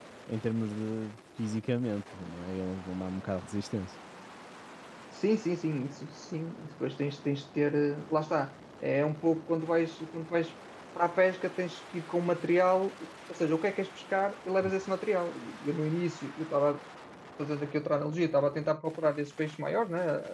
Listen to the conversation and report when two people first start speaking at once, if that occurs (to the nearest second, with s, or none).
none